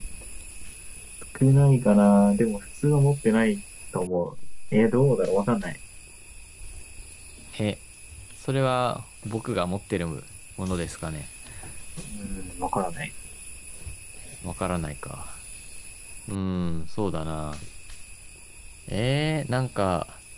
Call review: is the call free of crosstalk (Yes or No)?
Yes